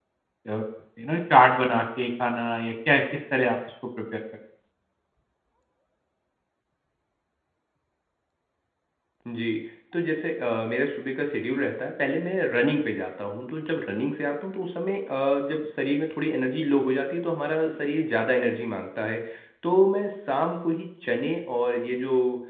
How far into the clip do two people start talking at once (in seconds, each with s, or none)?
none